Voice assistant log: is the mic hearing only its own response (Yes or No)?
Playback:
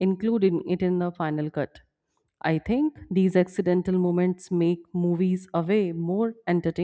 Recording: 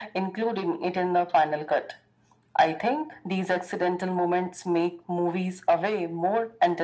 Yes